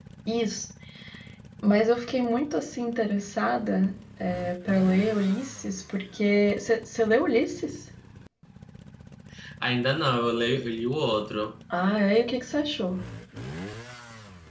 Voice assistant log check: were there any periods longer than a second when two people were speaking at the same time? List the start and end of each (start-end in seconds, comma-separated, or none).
none